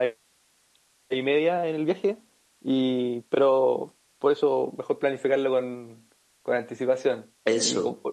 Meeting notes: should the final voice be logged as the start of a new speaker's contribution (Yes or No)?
No